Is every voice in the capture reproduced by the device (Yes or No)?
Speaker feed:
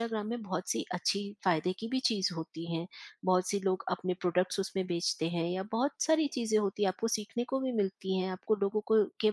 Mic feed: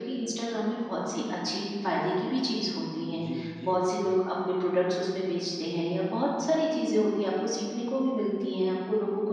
No